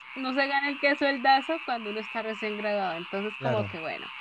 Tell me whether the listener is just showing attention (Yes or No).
Yes